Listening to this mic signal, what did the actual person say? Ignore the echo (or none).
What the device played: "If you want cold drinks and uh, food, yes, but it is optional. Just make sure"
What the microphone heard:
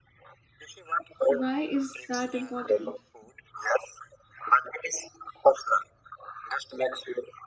Why is that important?